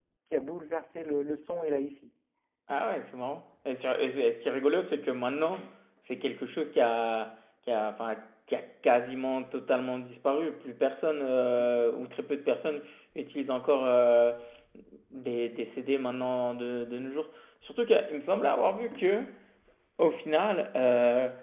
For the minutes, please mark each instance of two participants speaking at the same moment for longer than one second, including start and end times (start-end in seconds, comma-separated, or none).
none